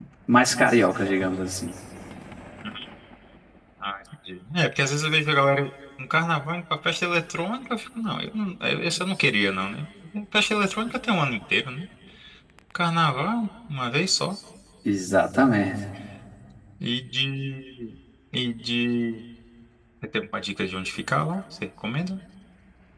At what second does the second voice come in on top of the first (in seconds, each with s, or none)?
none